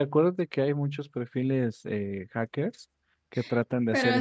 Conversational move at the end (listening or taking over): taking over